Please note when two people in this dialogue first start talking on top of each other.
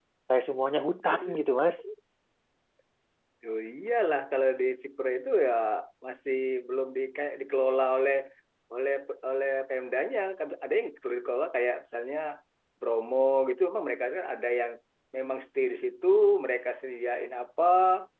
none

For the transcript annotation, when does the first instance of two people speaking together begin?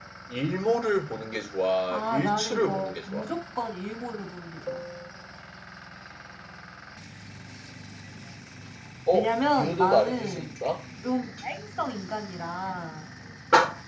1.9 s

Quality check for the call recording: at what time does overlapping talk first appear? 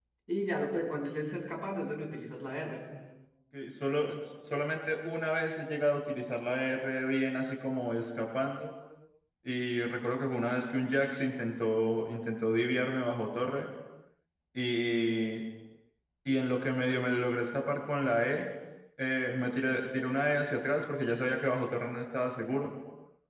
none

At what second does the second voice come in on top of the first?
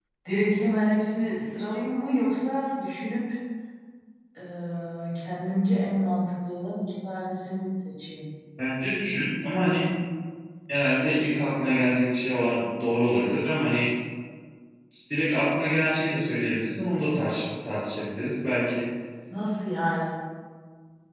none

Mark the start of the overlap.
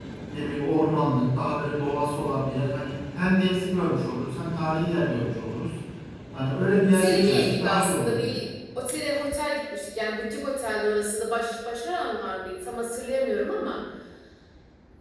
6.9 s

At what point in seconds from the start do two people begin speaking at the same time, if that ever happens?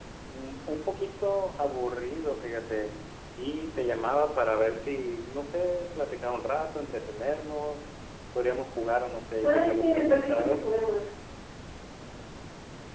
9.4 s

